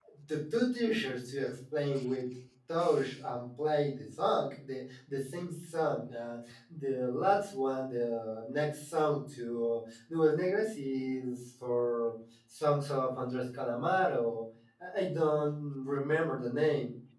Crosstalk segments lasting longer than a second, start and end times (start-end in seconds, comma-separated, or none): none